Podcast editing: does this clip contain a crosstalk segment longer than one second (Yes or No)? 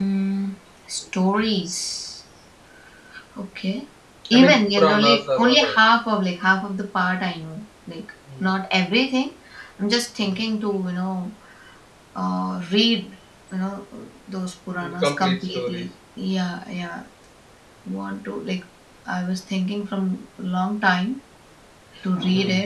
Yes